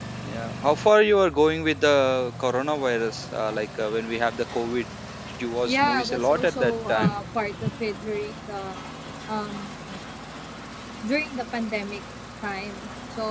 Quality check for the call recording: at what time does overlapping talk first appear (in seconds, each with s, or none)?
5.6 s